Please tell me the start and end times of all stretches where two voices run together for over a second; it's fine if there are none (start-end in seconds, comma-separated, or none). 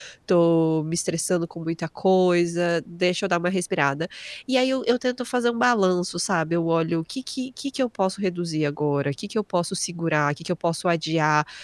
none